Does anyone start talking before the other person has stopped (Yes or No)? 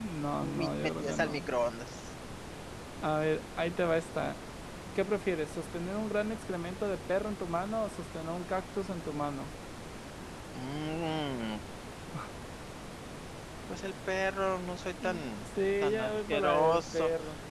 Yes